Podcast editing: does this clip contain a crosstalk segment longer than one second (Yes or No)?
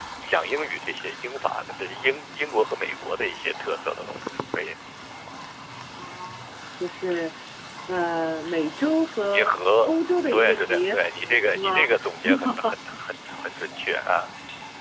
Yes